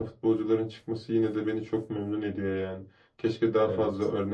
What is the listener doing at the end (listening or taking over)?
listening